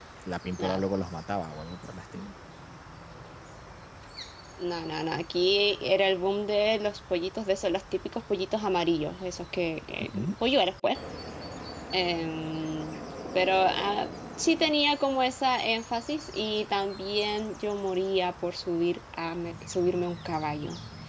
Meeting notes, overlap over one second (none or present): none